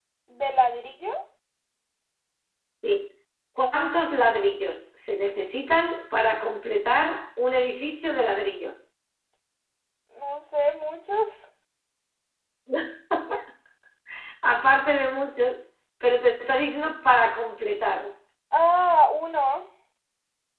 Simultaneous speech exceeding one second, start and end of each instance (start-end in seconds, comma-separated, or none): none